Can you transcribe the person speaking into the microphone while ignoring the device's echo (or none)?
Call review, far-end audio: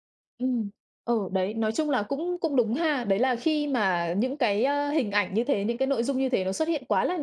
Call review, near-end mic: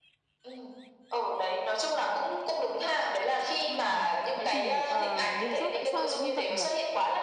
Ồ, vậy thì, ờ, lý do tại sao lại như vậy nhỉ?